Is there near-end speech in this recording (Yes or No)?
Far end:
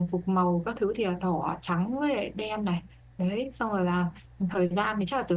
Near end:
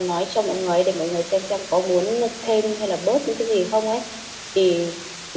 Yes